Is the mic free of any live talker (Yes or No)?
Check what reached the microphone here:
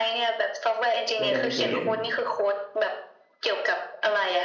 No